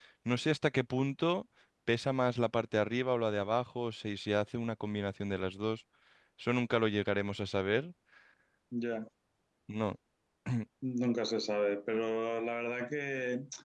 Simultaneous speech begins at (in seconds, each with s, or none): none